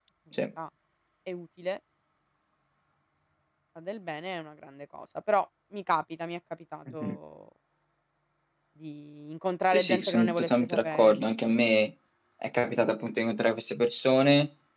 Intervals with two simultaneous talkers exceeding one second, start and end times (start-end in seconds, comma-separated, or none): 9.7-11.2